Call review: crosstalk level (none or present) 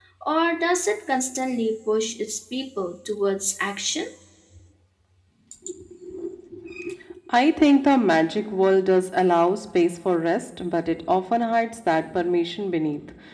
none